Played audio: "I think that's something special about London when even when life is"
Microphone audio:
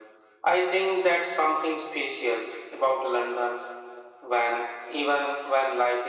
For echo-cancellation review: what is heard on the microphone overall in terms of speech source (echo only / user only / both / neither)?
echo only